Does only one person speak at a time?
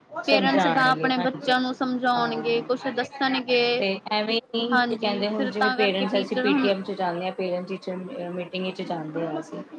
No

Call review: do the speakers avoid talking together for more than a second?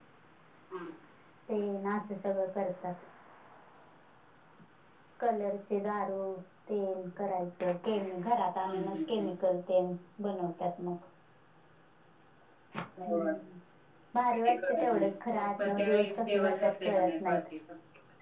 No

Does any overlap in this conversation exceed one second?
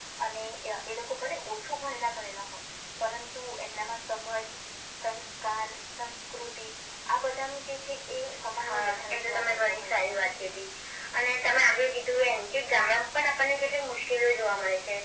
Yes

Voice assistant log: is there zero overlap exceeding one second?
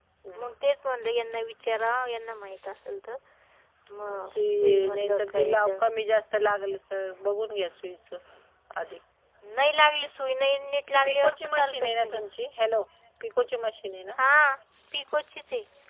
No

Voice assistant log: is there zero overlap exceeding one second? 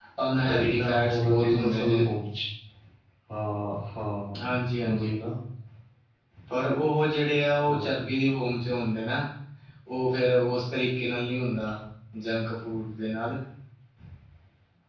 No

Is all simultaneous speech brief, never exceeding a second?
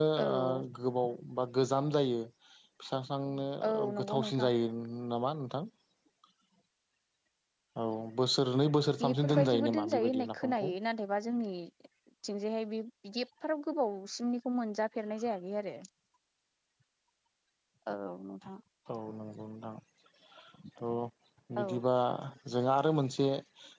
No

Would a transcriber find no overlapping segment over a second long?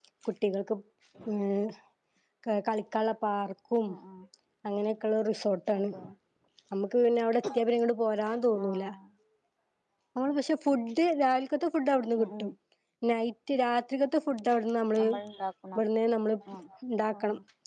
Yes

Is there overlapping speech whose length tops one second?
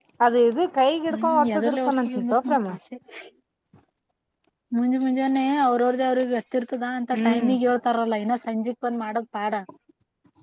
Yes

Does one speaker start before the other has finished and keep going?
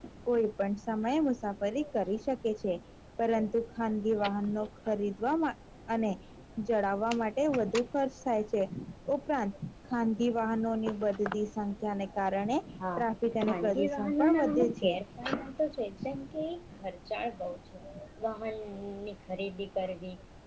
Yes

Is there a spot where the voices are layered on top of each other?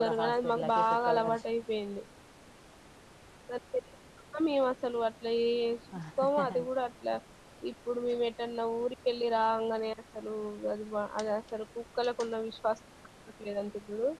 Yes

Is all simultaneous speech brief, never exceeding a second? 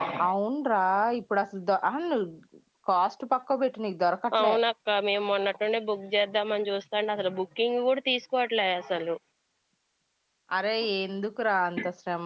Yes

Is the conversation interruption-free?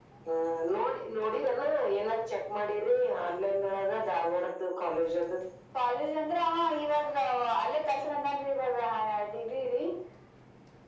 Yes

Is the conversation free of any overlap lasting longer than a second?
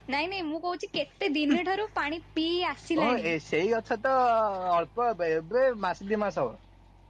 Yes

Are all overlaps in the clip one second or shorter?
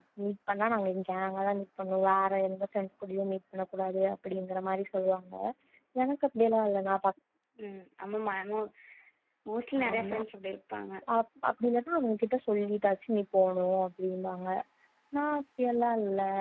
Yes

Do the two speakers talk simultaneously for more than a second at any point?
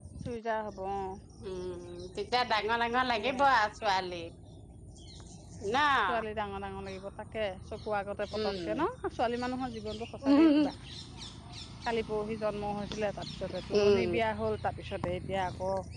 No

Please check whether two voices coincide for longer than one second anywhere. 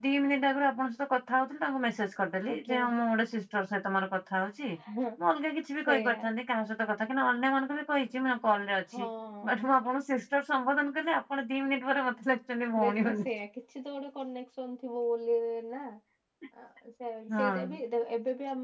No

